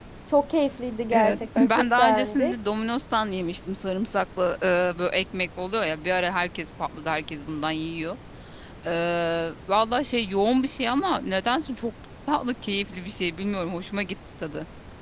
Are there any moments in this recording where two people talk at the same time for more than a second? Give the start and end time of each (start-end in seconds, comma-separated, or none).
1.1-2.5